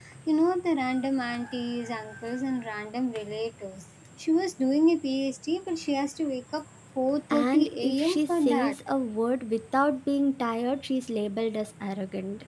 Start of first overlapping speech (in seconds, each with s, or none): 7.3 s